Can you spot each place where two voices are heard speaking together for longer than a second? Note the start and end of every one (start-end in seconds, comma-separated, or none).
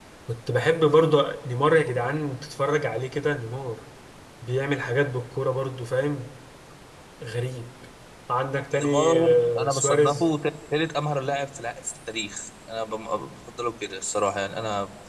8.7-10.3